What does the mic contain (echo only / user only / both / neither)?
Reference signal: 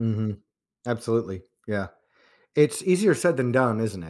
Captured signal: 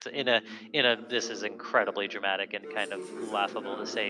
both